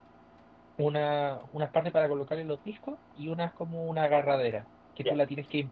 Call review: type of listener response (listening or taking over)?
listening